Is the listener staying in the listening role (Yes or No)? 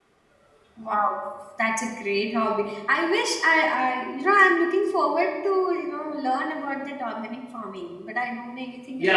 No